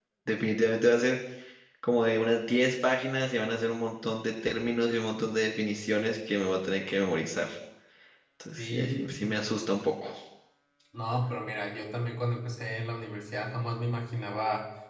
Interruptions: present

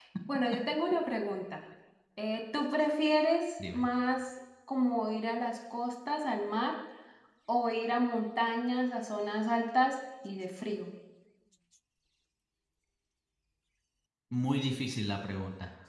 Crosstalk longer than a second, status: none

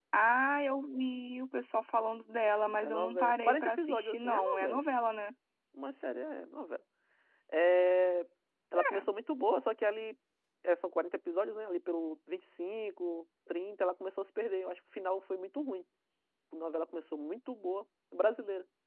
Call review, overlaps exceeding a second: present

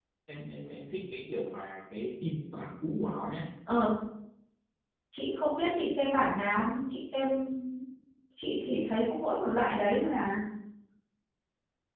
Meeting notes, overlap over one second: none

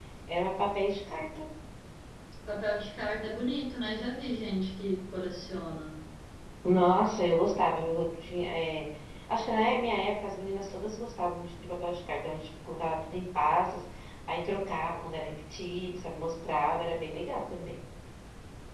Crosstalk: none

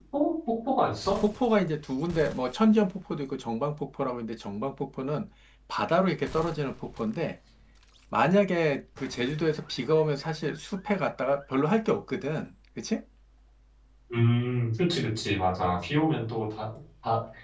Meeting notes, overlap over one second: none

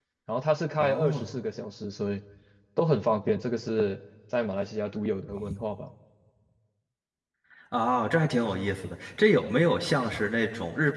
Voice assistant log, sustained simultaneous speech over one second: none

